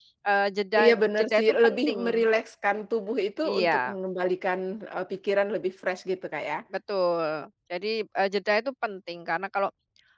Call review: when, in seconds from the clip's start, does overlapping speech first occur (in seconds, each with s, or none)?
0.8 s